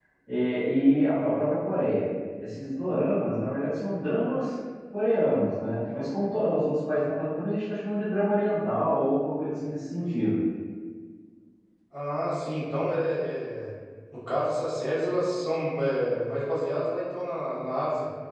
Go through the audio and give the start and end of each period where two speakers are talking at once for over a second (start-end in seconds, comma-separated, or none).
none